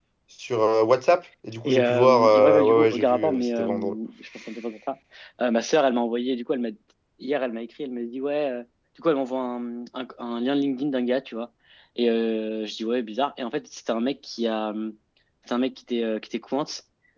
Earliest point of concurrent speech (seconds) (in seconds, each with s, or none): 1.6 s